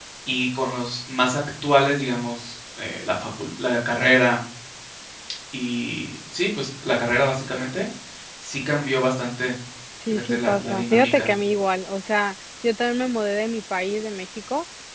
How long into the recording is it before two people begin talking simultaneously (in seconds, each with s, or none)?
10.1 s